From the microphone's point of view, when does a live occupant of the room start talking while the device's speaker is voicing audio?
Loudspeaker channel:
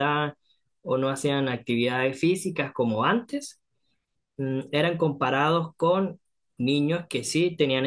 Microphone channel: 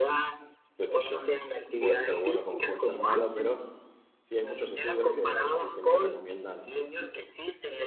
1 s

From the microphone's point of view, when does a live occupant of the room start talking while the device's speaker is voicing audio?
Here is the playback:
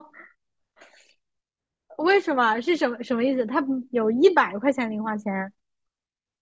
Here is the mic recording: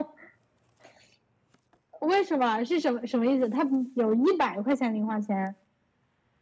none

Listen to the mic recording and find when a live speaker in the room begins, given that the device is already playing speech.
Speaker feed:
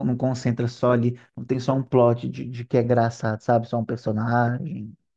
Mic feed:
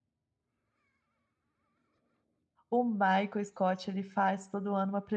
3 s

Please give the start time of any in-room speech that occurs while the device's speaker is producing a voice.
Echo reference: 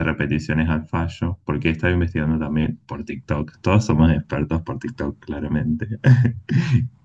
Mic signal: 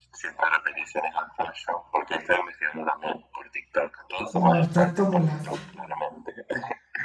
4 s

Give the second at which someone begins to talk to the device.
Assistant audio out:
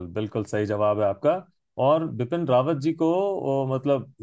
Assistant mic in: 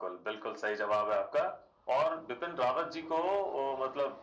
none

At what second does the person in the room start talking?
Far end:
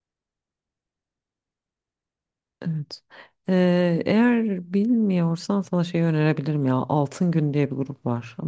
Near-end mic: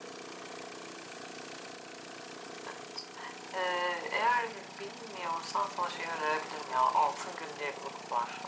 none

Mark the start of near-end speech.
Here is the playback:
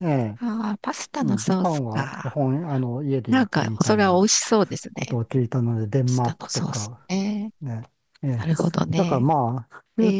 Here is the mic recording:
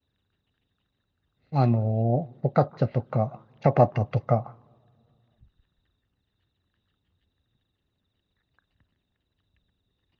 2 s

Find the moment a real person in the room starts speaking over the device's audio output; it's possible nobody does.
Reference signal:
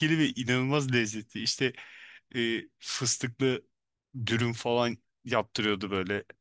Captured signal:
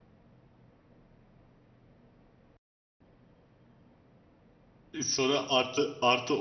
5 s

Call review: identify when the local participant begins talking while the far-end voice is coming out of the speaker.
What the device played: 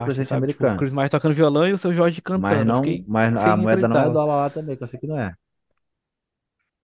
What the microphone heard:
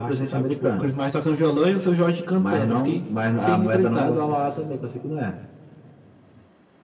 none

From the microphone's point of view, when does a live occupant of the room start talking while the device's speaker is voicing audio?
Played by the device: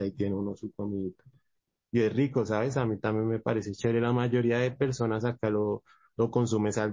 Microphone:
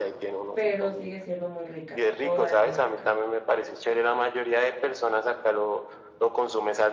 1 s

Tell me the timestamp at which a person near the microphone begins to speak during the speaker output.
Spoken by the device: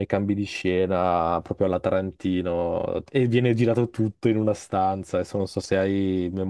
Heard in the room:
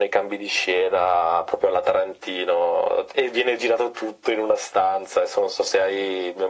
none

